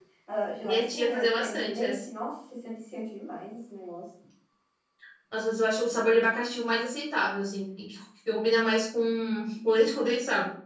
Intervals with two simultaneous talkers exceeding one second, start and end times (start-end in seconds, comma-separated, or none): 0.6-1.9